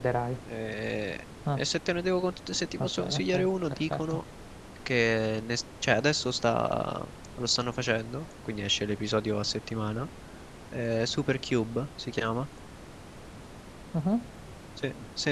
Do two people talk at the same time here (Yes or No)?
Yes